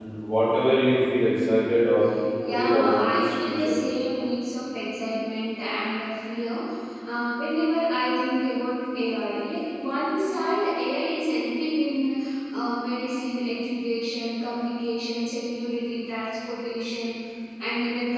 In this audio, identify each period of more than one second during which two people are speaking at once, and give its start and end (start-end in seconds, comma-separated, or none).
2.5-3.7